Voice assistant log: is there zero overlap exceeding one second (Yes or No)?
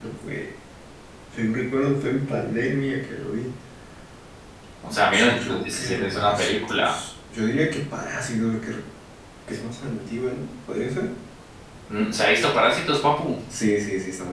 No